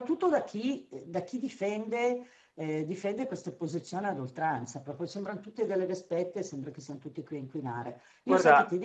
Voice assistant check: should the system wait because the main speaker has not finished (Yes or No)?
Yes